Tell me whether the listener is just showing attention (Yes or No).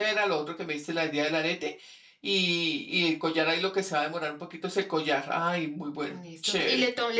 No